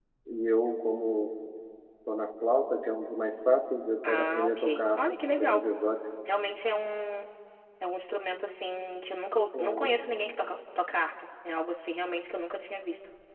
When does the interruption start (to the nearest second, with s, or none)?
4 s